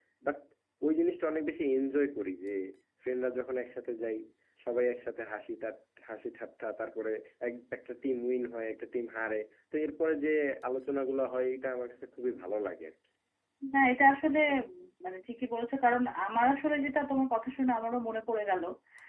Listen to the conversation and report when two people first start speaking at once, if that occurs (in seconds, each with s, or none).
none